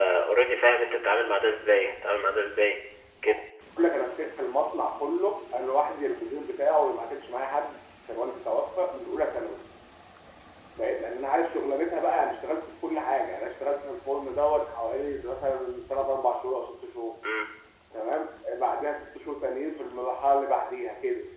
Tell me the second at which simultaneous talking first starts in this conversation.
none

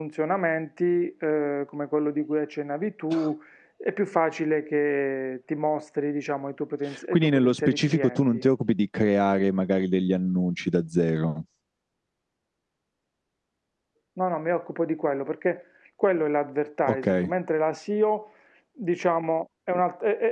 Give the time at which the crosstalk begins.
7.1 s

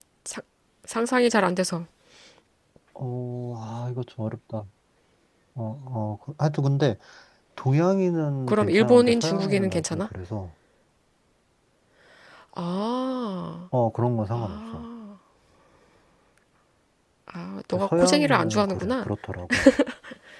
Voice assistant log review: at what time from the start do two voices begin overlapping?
8.5 s

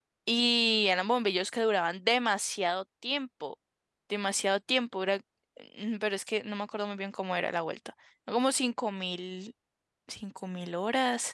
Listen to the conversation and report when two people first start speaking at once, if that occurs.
none

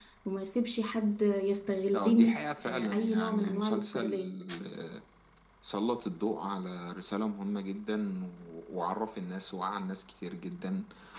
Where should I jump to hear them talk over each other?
1.9 s

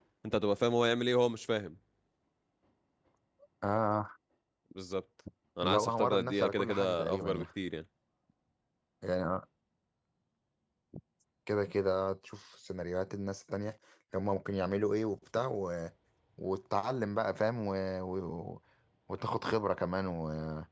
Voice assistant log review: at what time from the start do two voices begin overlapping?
5.6 s

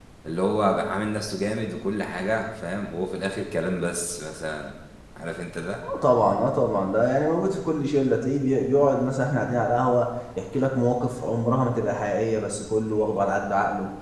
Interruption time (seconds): none

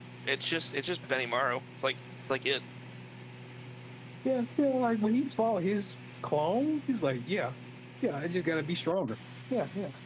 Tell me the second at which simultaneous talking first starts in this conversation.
none

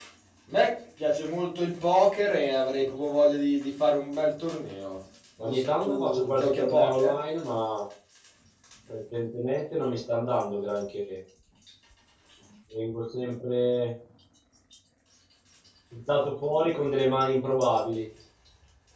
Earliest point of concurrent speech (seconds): 5.4 s

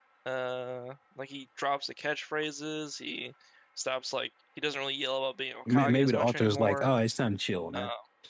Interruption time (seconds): 5.7 s

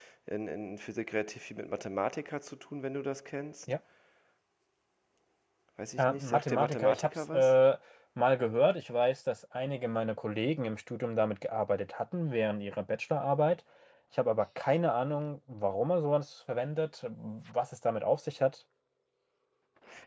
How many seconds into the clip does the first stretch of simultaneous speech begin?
6.0 s

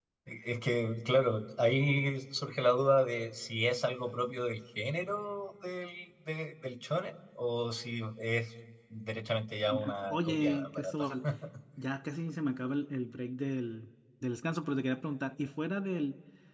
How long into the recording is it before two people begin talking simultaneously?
9.6 s

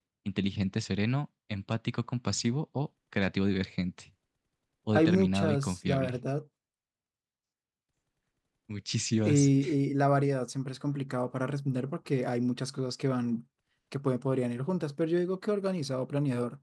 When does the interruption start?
4.9 s

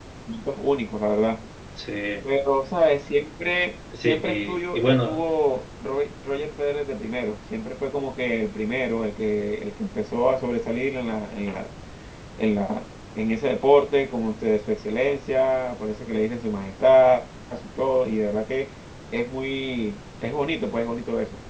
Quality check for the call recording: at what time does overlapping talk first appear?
3.9 s

